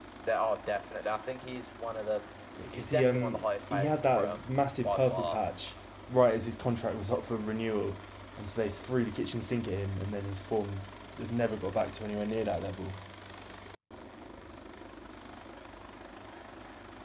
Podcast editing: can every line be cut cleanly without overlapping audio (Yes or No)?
No